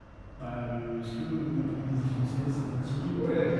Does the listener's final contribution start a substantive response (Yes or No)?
Yes